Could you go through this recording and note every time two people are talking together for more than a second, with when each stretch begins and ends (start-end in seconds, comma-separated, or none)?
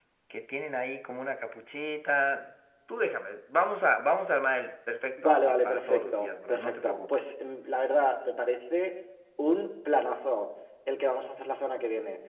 5.2-7.3